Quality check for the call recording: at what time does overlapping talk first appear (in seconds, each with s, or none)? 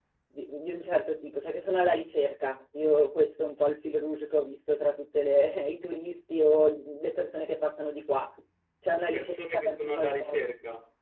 9.1 s